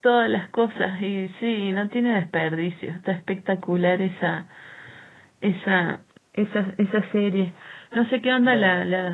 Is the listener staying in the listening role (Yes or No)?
Yes